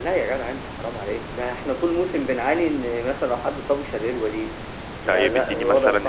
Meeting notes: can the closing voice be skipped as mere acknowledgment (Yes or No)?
No